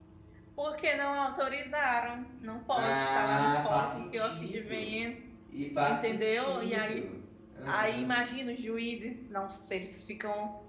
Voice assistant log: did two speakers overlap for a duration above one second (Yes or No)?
Yes